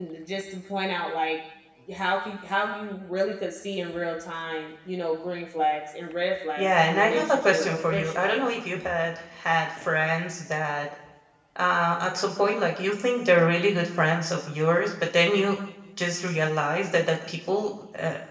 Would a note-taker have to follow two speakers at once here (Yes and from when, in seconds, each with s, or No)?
Yes, from 6.6 s